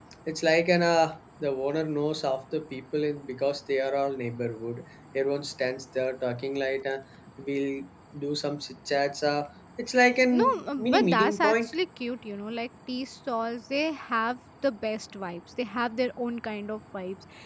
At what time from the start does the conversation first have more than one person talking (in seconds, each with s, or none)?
10.3 s